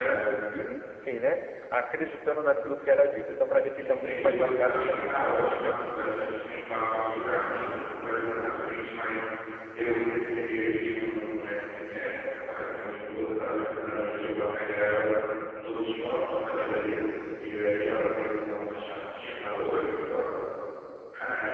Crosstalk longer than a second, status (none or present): present